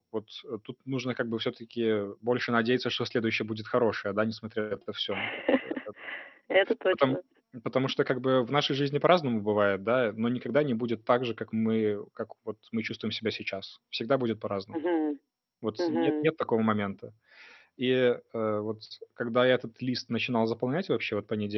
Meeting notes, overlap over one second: none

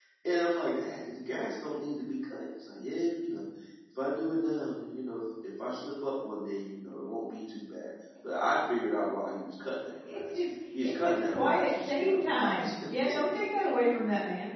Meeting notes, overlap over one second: present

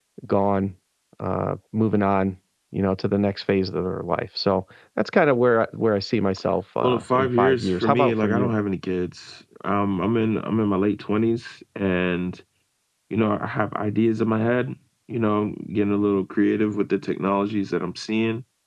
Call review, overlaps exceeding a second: present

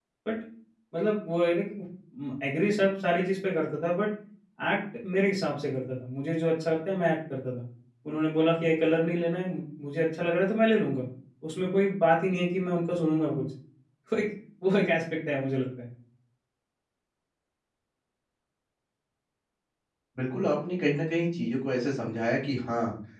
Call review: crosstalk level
none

